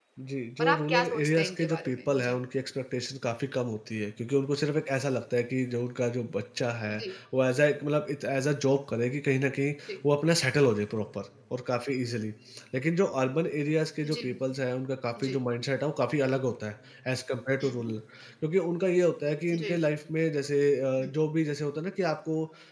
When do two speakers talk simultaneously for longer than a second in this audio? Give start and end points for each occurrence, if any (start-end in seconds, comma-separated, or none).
0.6-2.4